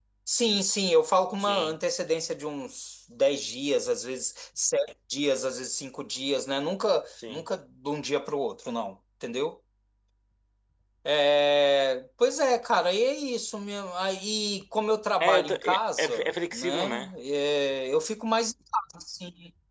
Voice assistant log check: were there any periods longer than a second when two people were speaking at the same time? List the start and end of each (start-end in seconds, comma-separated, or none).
15.2-17.1